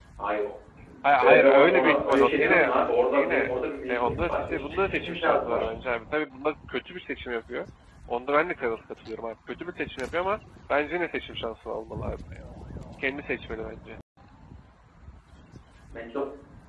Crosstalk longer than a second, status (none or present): present